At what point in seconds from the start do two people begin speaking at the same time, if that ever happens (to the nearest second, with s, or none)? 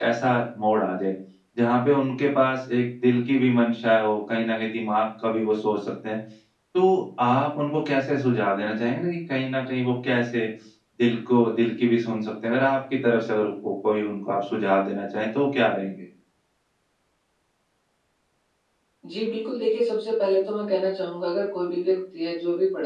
none